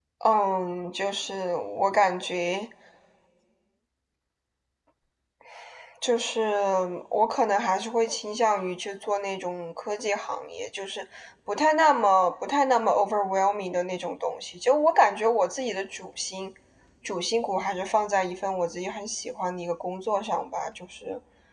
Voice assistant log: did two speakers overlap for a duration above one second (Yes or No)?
No